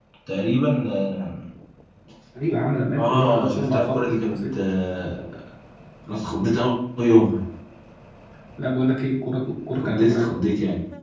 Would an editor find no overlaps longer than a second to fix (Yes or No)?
No